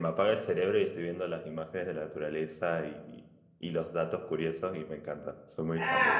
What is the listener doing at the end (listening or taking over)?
taking over